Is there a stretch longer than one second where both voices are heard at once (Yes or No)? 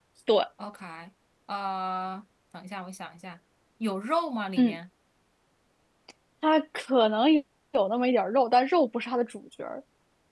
No